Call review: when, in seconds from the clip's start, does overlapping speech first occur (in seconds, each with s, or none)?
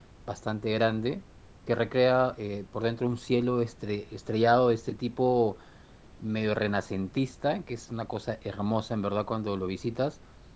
none